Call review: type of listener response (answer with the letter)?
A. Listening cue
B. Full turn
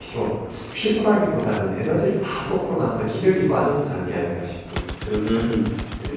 B